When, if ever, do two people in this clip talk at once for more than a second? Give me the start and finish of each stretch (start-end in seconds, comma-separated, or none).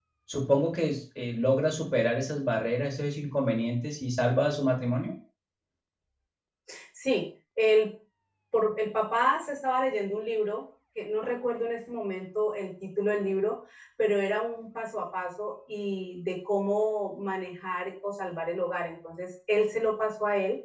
none